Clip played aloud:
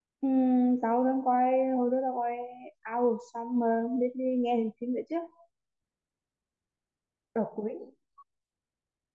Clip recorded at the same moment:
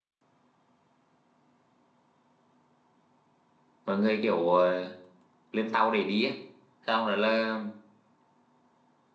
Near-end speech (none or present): present